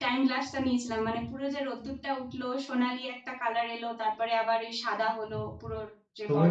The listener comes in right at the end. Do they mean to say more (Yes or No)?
Yes